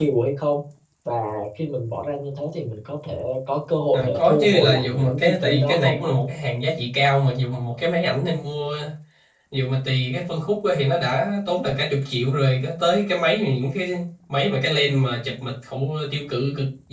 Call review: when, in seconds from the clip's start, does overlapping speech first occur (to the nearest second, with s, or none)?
4 s